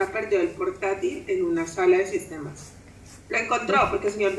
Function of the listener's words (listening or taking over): listening